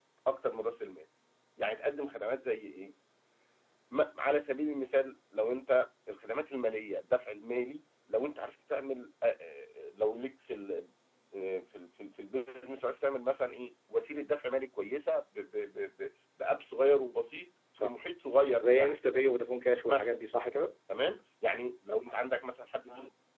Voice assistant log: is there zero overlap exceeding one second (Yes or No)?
Yes